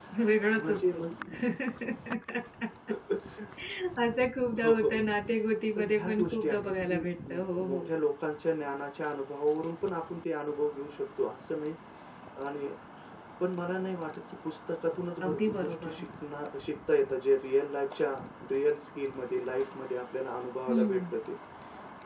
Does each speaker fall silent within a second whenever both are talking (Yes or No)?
No